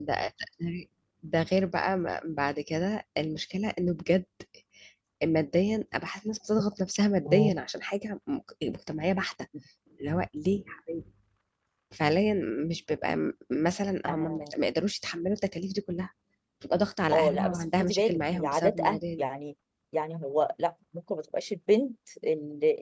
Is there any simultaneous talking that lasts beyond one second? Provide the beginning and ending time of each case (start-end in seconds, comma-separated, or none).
17.1-19.2